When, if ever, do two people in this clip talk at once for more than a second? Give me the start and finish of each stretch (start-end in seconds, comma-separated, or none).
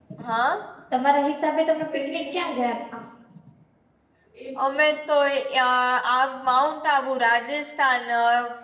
none